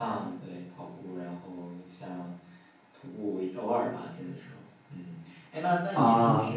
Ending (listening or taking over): listening